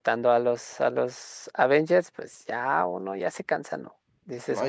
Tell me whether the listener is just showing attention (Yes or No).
No